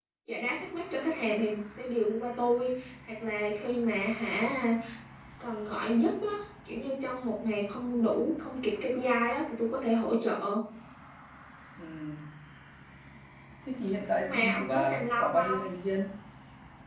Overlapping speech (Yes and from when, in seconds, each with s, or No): Yes, from 14.2 s